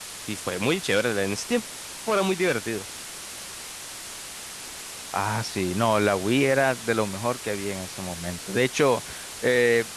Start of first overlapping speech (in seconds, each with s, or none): none